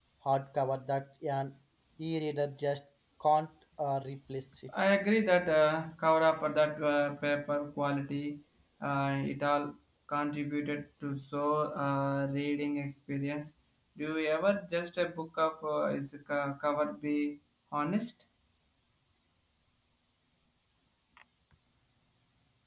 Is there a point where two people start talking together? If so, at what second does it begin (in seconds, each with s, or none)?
none